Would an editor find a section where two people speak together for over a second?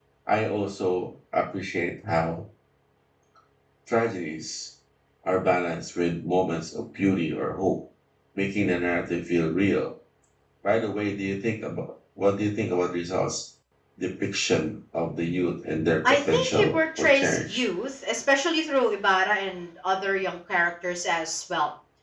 Yes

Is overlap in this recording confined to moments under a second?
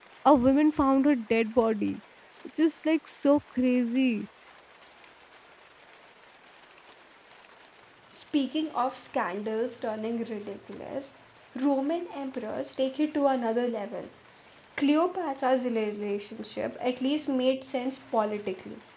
Yes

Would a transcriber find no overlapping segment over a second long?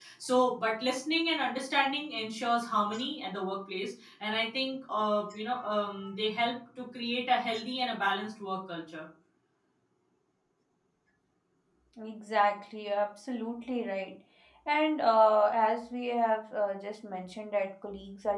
Yes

